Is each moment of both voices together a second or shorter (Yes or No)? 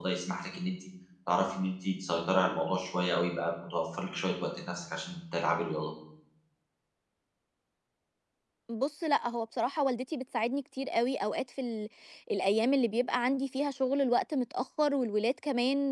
Yes